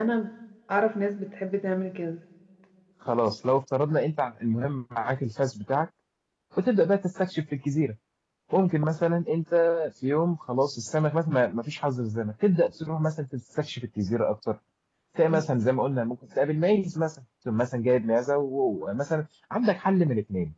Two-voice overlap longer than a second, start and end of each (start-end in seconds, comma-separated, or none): none